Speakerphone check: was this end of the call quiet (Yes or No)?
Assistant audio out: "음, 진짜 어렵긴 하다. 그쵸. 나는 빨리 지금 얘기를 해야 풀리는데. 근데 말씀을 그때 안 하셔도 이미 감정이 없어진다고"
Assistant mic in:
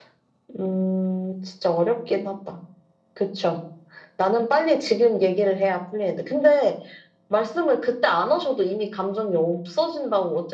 Yes